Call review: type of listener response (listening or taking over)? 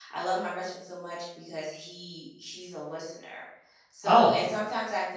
listening